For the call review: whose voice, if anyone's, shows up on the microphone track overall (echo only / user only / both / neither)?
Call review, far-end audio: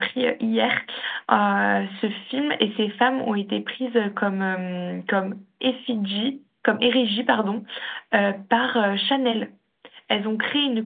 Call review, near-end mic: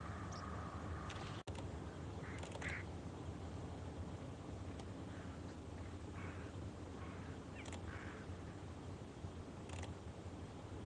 neither